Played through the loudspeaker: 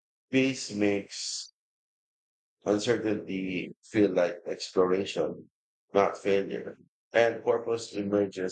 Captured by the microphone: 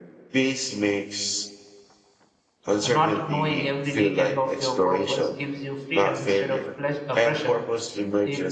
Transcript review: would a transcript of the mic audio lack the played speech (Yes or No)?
No